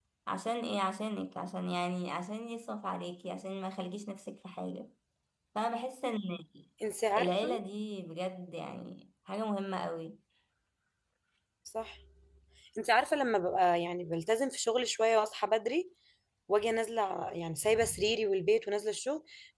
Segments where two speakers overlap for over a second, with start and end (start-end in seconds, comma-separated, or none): none